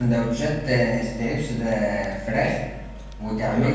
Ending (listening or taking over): listening